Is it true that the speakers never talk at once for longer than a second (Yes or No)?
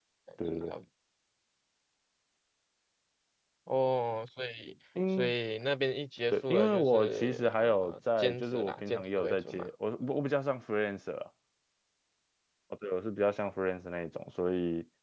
No